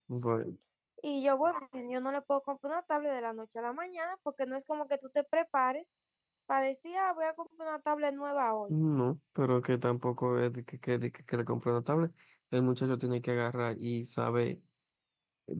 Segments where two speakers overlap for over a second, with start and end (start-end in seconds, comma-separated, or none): none